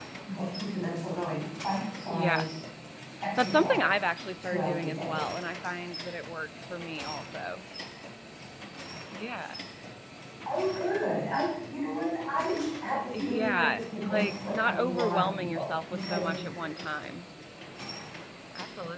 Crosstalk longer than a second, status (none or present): present